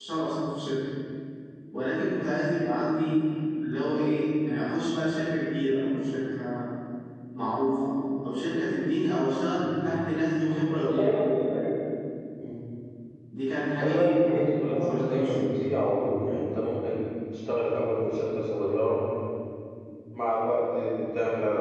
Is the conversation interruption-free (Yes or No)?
No